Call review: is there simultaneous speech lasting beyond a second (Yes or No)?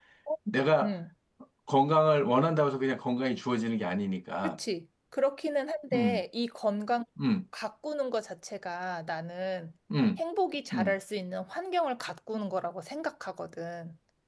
No